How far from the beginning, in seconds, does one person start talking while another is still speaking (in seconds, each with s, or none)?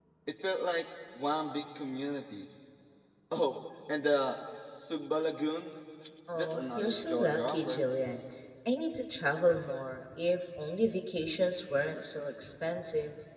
6.3 s